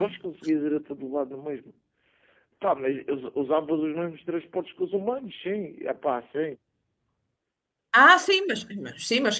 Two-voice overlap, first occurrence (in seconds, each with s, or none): none